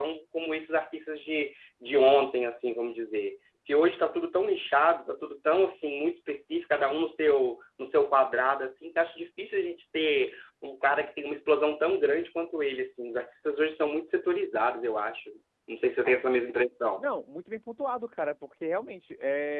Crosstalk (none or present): none